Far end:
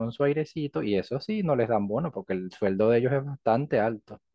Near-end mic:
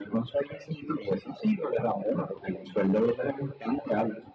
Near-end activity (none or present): none